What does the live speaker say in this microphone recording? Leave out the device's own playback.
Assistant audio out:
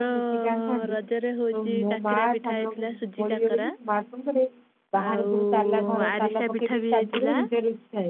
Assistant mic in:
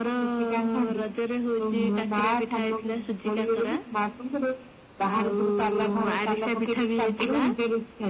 none

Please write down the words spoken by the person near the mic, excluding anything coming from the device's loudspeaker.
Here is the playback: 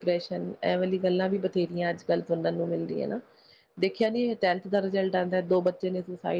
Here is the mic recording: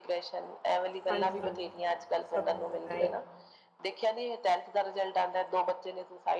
ਹਾਂਜੀ-ਹਾਂਜੀ ਬਿਲਕੁਲ ਸਭ ਨੂੰ ਹੈ

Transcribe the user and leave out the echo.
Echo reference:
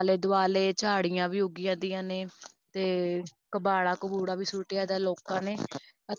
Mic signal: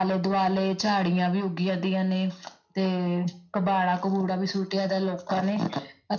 none

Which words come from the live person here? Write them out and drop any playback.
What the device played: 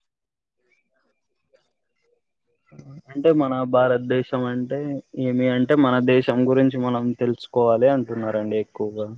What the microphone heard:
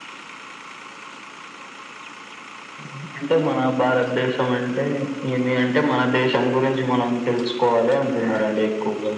none

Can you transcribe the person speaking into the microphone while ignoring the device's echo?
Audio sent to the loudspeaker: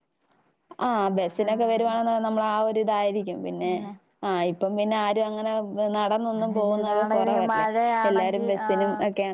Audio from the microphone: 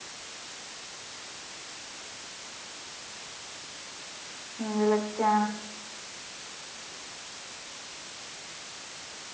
ഉം വിളിക്കാ

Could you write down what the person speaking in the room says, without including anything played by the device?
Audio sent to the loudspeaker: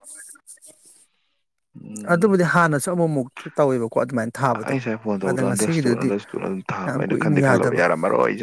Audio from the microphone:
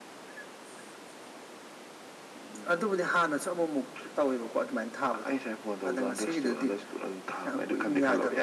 none

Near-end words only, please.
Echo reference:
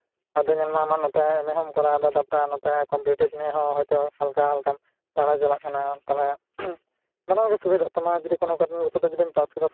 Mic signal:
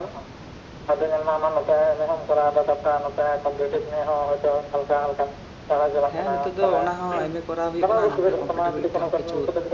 ᱦᱮᱸ ᱱᱤᱛᱚᱜ ᱫᱚ ᱚᱱᱟ ᱦᱚᱸ ᱮᱢ ᱮ ᱠᱚᱨᱟᱣ ᱦᱳᱭᱳᱜ ᱠᱟᱱᱟ ᱱᱚᱛᱮ ᱠᱚᱢᱯᱤᱴᱤᱵᱷ ᱞᱟᱹᱜᱤᱫ ᱛᱮᱦᱚᱸ ᱠᱤᱪᱷᱩ

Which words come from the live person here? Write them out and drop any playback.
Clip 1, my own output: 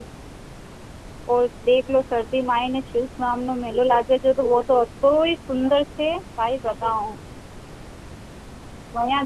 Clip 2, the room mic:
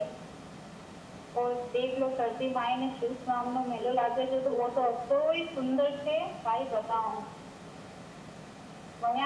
none

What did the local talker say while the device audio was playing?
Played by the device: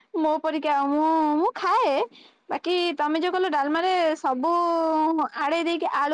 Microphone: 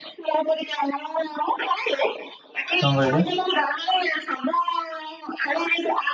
କଣ କହିଲେ?

